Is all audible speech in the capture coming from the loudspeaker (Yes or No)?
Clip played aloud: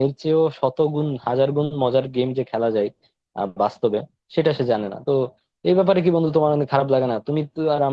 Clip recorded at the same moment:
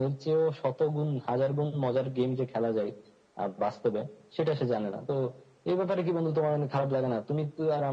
Yes